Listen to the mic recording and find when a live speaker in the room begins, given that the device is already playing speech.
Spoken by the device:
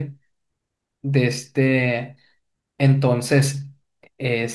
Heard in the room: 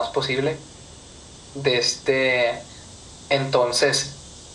none

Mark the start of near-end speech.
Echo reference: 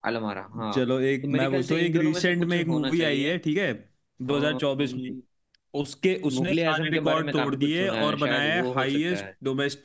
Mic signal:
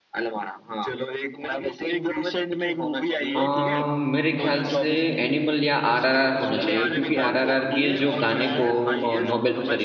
3 s

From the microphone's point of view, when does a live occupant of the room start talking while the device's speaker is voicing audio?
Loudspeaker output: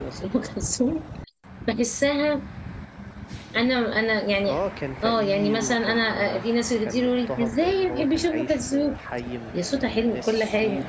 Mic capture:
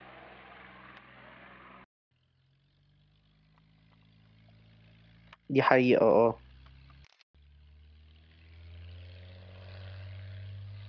5 s

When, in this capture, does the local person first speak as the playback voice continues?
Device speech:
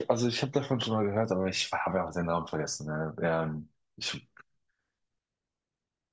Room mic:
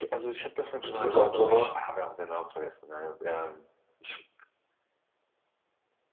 1 s

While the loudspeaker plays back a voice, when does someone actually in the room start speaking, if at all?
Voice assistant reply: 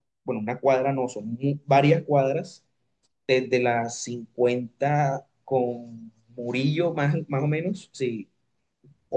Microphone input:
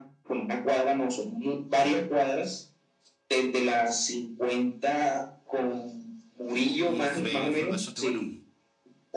7 s

